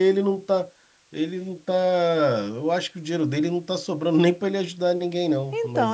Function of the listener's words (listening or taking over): taking over